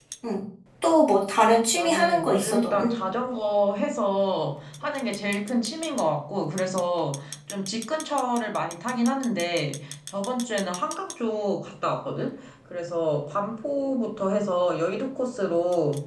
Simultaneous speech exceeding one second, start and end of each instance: 1.5-3.0

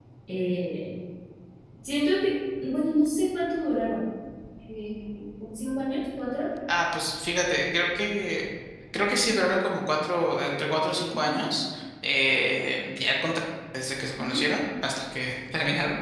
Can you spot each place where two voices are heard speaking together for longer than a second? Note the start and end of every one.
none

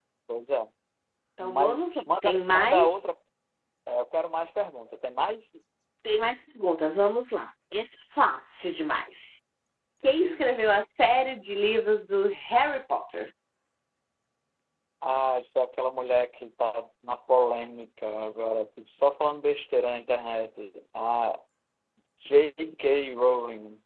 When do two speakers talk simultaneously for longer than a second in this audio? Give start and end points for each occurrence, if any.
1.4-3.1

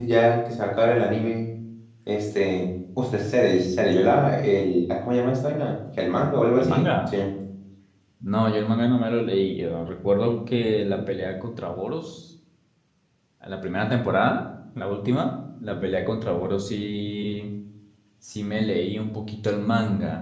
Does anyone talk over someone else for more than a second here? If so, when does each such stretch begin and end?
none

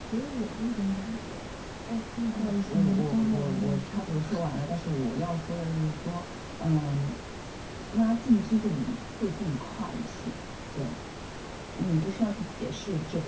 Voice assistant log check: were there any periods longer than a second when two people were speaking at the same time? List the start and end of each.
2.3-4.2

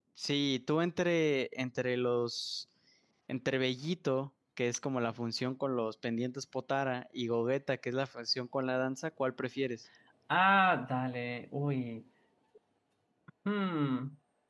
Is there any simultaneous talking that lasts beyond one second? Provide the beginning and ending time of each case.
none

